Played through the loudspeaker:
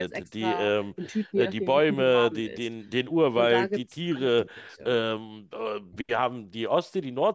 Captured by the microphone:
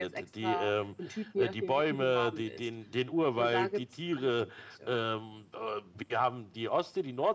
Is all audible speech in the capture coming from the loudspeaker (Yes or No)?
Yes